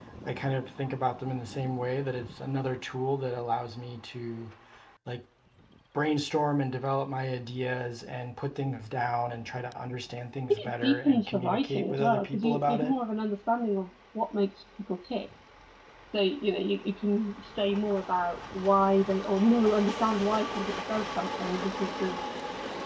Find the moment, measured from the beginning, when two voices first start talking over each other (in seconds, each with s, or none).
10.5 s